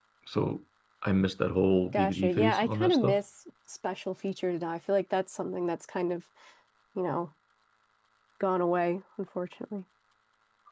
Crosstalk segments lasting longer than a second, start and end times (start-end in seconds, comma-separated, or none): 1.9-3.2